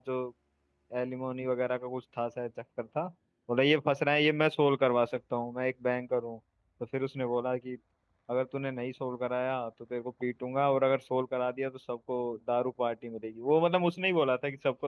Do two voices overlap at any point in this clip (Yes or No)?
No